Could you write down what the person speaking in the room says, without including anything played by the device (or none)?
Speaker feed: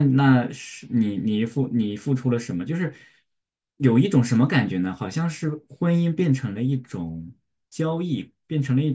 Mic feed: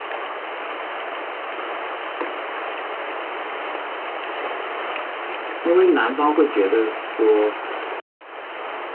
因为男方会觉得说，